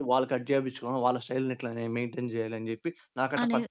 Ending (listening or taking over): taking over